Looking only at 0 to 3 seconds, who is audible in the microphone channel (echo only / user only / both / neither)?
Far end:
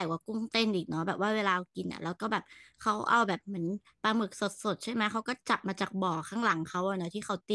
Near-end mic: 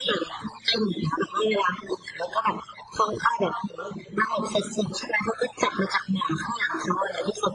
echo only